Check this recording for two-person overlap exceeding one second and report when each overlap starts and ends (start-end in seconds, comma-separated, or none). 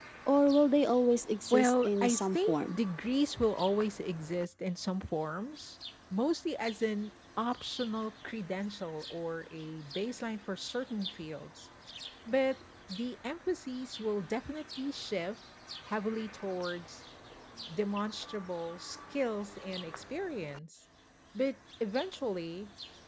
1.5-2.8